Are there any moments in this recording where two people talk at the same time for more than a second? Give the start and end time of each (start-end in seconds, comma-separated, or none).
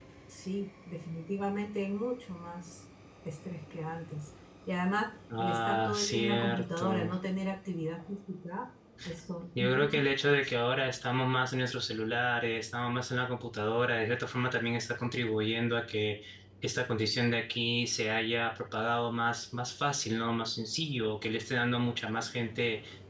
5.4-7.1